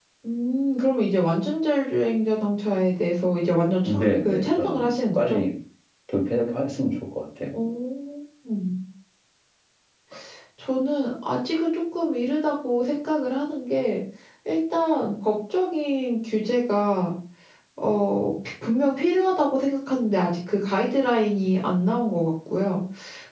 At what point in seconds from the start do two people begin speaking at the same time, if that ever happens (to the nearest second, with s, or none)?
4 s